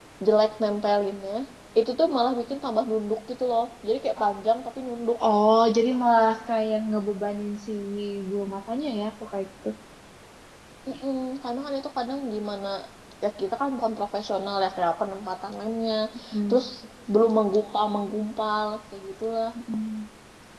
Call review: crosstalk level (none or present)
none